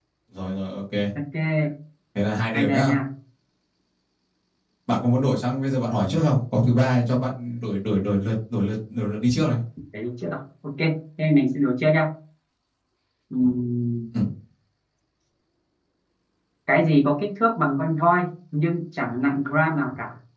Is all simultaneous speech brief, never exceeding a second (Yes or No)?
Yes